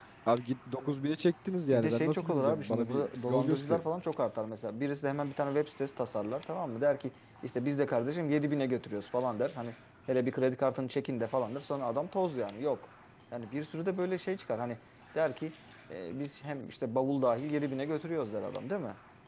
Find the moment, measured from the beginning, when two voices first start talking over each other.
1.7 s

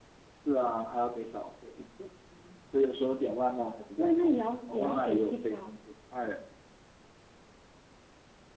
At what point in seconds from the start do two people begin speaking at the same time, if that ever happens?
4.0 s

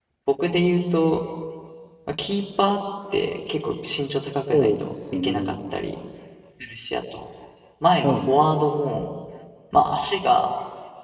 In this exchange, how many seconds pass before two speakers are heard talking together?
4.3 s

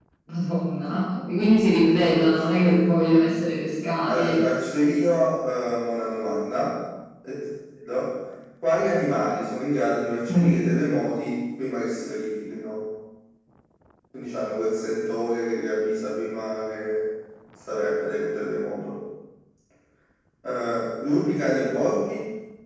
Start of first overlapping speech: 1.8 s

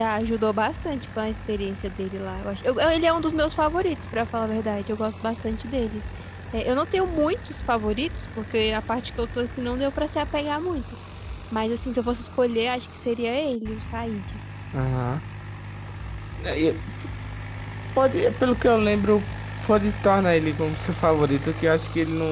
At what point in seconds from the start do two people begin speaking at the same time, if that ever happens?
none

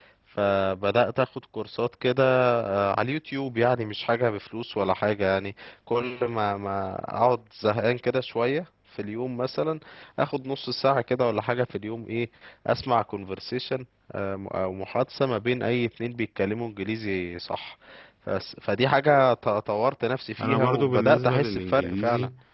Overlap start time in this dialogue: 20.4 s

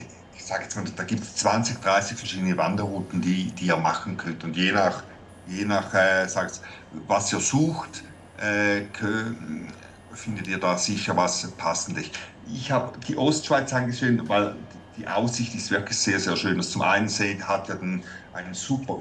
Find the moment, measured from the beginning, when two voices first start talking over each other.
none

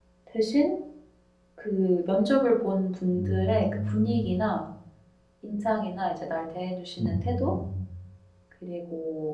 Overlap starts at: 3.1 s

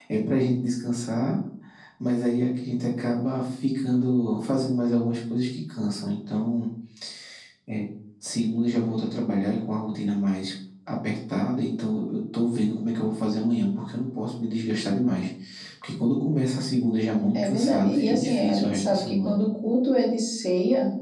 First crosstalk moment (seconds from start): 17.3 s

